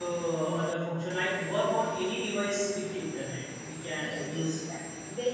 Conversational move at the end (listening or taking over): taking over